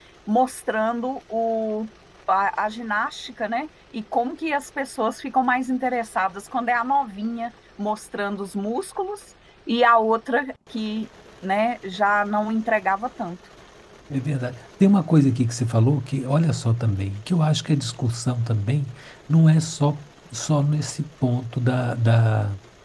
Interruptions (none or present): none